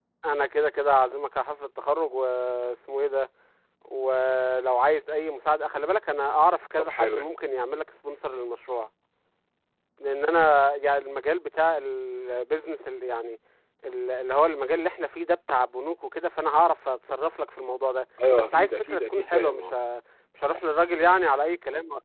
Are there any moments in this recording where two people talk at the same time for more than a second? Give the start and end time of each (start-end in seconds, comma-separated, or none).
18.3-19.7